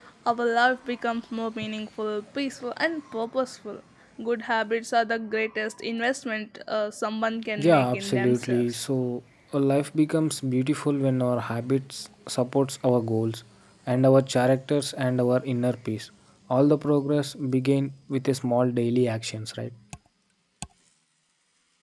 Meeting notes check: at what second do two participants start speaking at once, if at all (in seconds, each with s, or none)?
7.6 s